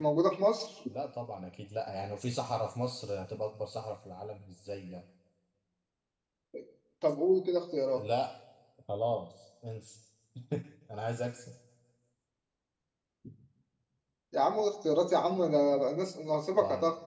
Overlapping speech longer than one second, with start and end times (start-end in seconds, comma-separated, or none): none